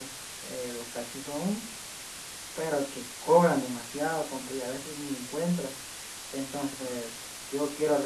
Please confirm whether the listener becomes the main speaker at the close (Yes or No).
No